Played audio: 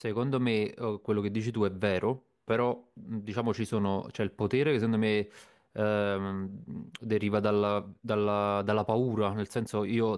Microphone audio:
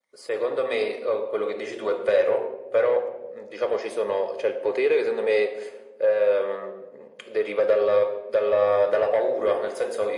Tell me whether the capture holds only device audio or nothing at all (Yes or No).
Yes